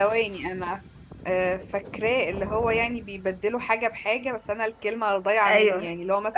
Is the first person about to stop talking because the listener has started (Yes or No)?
Yes